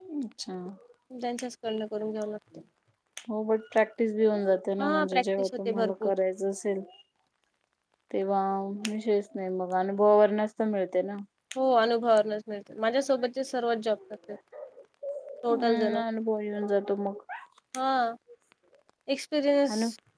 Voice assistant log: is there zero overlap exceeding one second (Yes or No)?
No